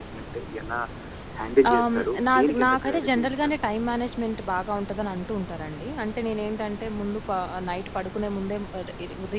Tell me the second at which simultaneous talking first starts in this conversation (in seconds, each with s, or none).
1.7 s